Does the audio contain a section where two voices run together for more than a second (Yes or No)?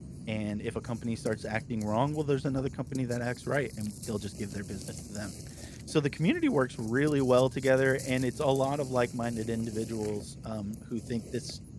No